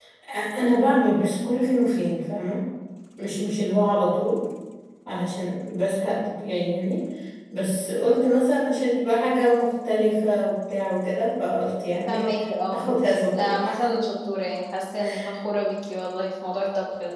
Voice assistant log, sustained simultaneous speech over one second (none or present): none